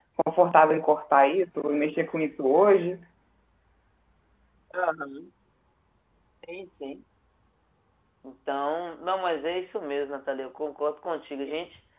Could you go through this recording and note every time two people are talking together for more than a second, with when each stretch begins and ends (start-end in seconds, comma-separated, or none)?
none